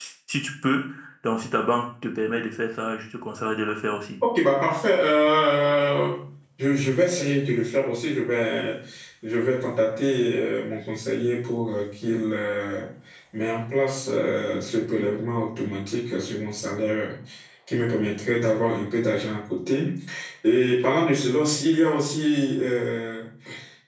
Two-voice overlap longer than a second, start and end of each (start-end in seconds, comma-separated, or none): none